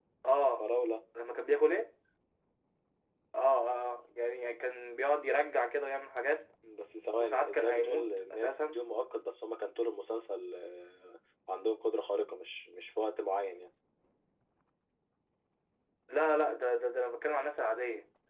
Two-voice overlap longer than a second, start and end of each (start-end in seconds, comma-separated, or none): 7.2-8.8